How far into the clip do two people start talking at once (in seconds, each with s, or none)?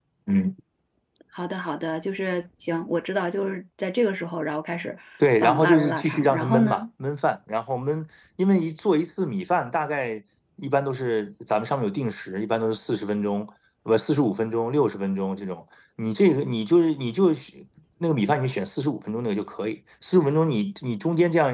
5.4 s